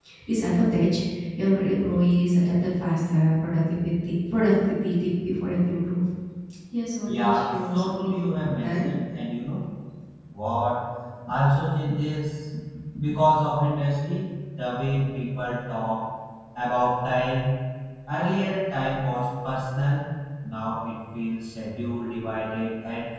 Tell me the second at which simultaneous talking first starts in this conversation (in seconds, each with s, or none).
7.1 s